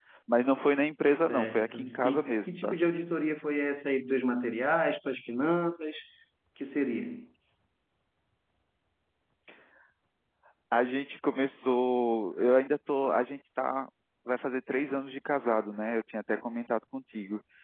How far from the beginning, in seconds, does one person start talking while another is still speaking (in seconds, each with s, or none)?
1.1 s